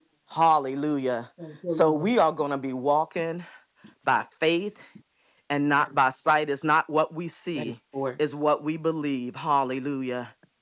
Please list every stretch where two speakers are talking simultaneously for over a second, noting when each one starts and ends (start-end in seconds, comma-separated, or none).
none